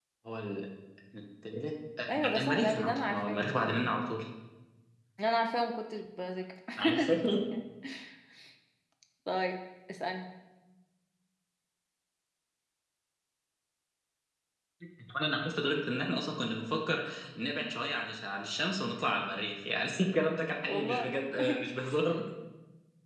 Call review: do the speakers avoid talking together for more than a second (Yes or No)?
No